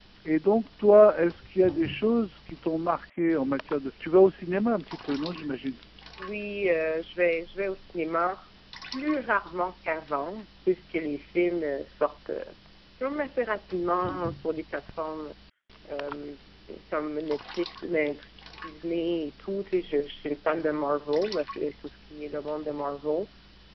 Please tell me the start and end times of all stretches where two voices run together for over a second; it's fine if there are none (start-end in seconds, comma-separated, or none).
none